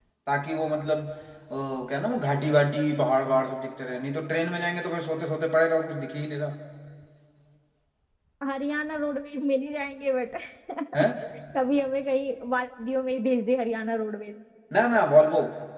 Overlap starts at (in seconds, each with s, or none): none